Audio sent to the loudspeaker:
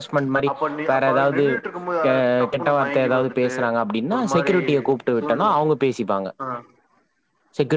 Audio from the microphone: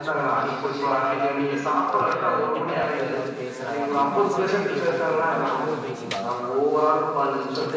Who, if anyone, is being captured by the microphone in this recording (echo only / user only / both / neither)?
both